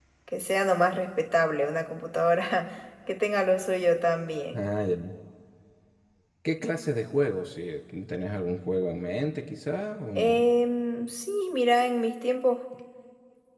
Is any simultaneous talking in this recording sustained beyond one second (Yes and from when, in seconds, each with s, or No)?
No